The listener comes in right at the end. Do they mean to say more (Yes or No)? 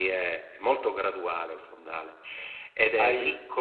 Yes